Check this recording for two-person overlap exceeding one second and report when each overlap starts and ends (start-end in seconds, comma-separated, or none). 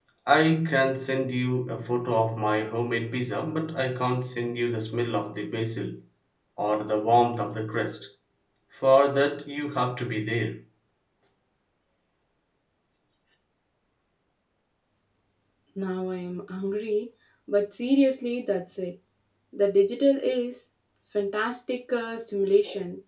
none